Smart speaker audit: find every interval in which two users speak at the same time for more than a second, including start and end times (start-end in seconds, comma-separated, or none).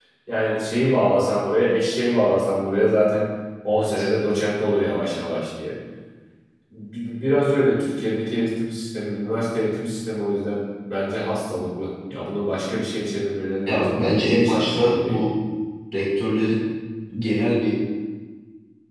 13.7-15.2